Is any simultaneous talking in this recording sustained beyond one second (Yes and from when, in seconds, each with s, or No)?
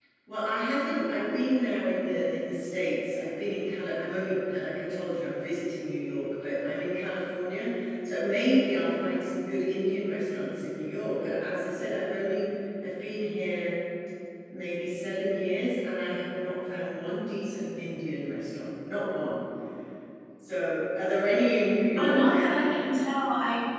No